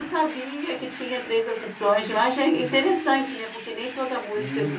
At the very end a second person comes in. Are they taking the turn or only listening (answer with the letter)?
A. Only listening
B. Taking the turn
A